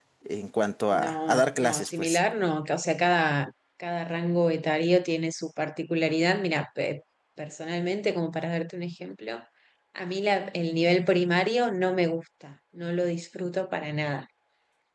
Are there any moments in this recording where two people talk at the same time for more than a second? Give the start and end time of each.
0.9-2.2

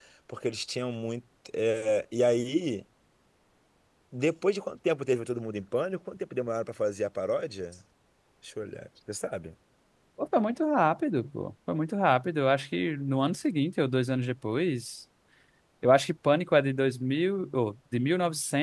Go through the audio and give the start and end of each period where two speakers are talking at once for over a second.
none

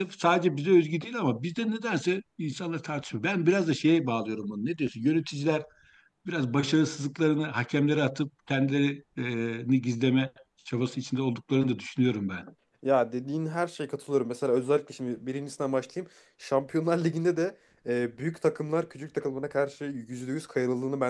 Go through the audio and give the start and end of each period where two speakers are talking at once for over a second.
none

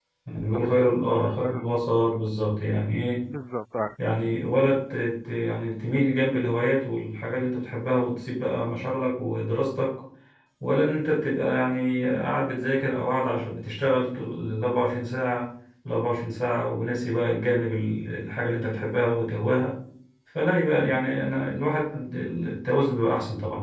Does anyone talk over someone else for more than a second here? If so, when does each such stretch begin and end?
0.5-2.2

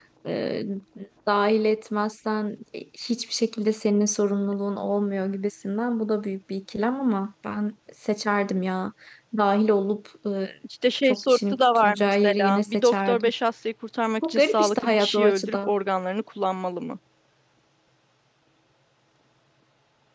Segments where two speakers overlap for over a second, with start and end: 11.0-13.3, 14.2-15.7

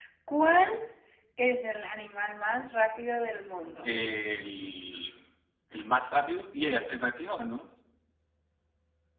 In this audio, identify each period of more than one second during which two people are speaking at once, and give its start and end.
none

